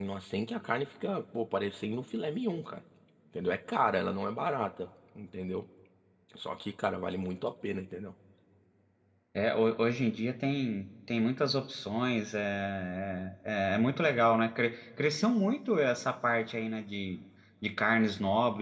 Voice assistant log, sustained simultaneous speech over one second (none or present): none